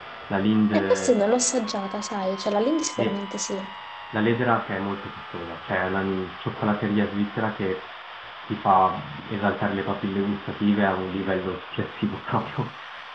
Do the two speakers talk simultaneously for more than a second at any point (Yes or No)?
No